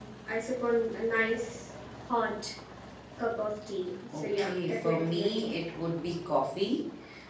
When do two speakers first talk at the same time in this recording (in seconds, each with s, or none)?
4.1 s